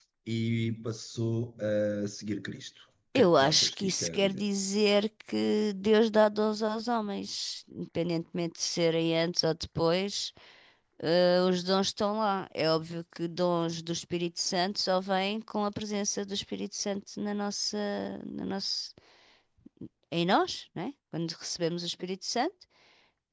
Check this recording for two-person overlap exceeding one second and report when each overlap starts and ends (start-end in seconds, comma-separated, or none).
3.1-4.4